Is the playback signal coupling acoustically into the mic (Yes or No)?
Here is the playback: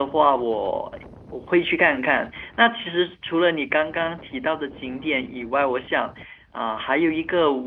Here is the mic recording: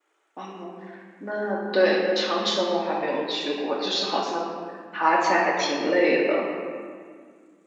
No